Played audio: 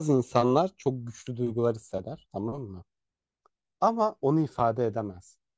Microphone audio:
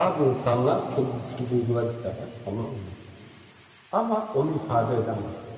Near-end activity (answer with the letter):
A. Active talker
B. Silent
B